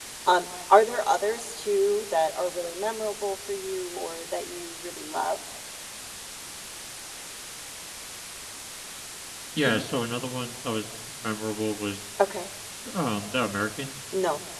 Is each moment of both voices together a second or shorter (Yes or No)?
Yes